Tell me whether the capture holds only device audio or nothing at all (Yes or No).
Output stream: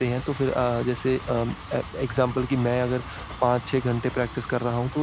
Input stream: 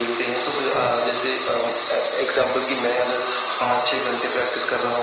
No